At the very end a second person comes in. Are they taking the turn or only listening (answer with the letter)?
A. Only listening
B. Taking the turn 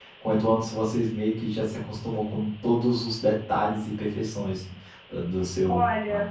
B